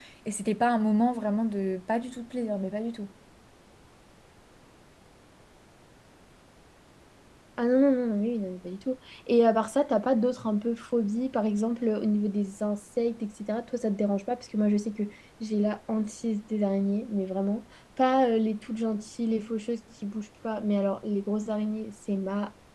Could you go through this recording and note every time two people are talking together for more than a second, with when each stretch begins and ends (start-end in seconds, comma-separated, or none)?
none